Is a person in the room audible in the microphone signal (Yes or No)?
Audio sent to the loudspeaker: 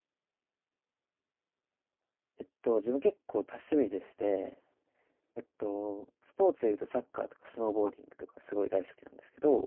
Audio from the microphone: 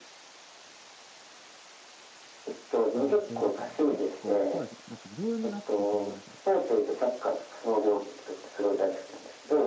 Yes